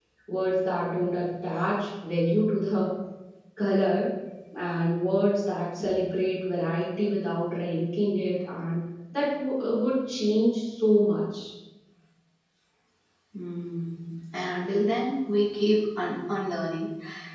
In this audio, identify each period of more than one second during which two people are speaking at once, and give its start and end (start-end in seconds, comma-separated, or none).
none